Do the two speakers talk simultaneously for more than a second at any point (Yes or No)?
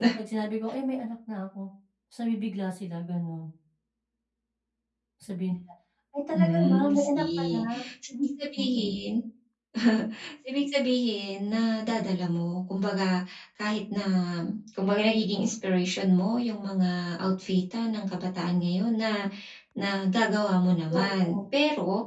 Yes